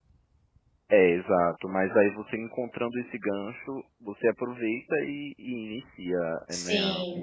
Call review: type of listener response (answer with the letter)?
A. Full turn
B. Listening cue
A